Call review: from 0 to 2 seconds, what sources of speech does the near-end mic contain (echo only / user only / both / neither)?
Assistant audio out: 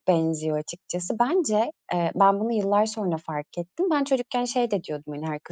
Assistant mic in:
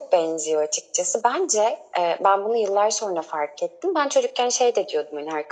echo only